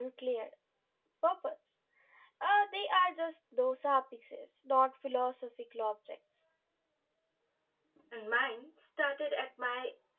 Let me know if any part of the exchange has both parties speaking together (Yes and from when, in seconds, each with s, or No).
No